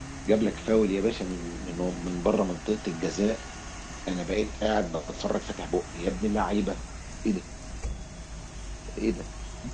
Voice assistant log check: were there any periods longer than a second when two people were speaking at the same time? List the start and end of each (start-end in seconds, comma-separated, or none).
none